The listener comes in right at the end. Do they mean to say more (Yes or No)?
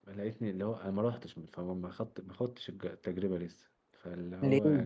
No